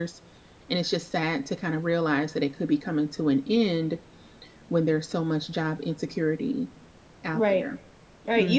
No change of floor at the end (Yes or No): No